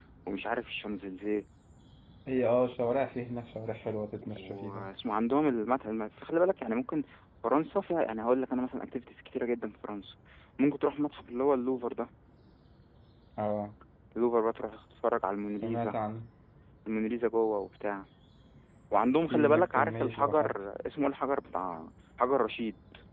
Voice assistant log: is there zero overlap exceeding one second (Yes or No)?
No